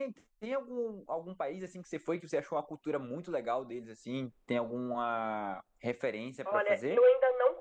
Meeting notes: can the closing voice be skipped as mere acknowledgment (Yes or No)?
No